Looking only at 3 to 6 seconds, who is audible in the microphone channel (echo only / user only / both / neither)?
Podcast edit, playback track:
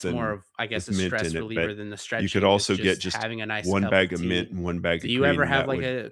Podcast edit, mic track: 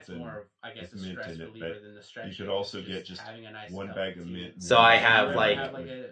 both